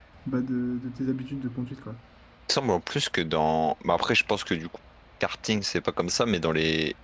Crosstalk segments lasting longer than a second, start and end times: none

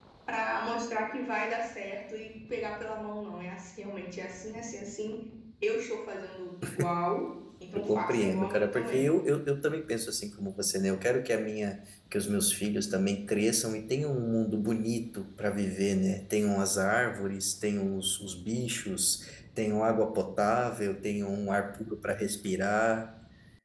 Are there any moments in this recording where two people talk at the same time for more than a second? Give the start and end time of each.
7.7-9.1

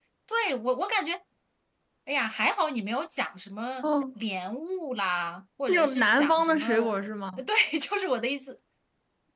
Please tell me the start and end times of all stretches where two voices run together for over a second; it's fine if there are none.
5.7-7.0

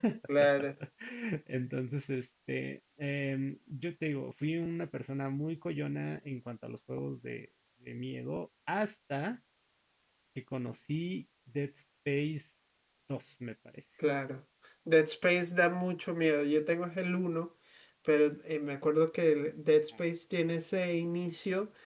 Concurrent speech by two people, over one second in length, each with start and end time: none

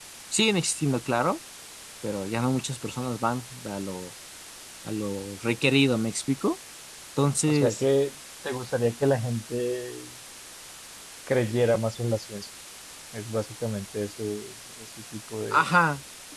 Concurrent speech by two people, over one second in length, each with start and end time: none

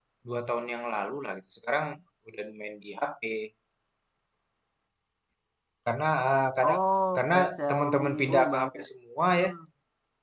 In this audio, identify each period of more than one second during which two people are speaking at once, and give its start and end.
7.2-8.8

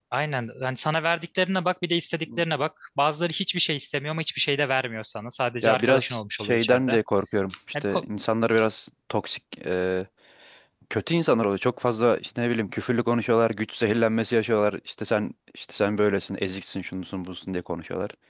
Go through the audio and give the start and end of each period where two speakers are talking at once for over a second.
5.6-6.9

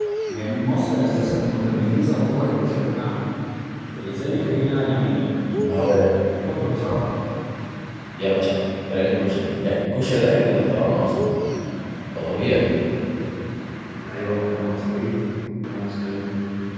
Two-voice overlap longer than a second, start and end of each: none

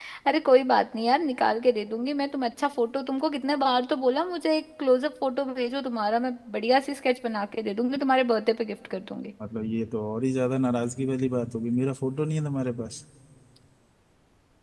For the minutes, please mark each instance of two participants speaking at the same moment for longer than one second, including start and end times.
none

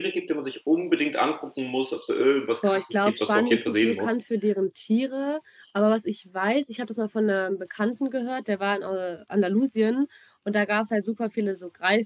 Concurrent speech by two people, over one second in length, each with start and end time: 2.6-4.1

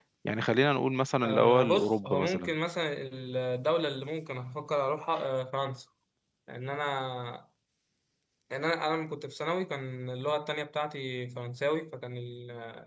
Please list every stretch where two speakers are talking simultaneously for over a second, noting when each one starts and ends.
1.2-2.5

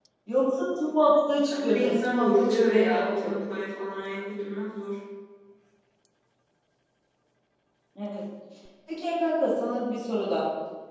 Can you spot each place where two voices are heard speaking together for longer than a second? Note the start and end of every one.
1.5-3.3

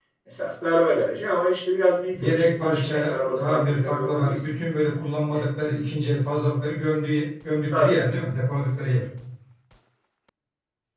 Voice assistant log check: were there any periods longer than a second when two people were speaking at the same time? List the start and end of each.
2.2-4.5

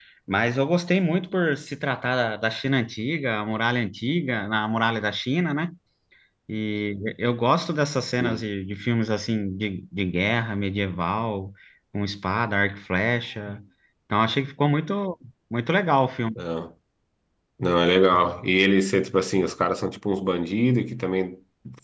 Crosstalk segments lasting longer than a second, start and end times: none

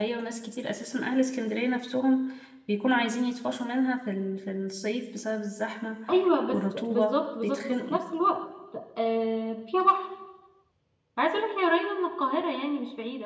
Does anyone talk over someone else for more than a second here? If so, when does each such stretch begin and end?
6.5-8.0

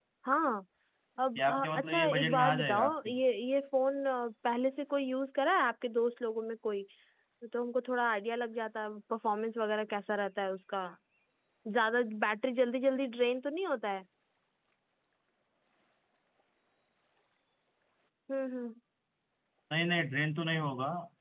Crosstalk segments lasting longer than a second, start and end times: 1.4-3.1

